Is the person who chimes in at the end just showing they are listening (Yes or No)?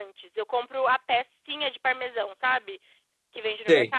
Yes